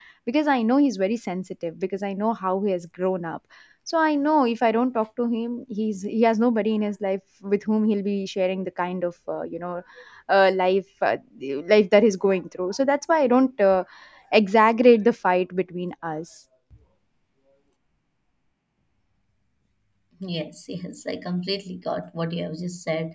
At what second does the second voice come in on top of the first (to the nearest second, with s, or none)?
none